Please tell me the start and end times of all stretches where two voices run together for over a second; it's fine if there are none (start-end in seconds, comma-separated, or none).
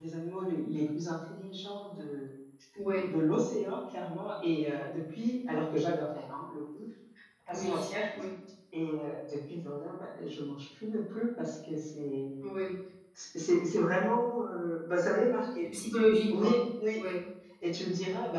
none